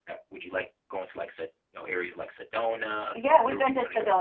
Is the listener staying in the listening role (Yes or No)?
No